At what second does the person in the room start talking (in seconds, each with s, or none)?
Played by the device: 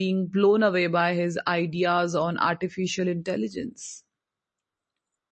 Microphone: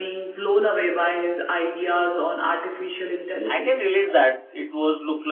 3.5 s